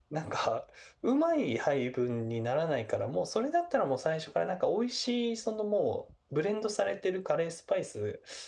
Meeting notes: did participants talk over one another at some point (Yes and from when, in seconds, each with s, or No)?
No